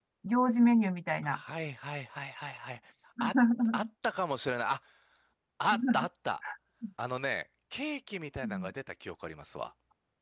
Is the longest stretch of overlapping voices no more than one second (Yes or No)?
Yes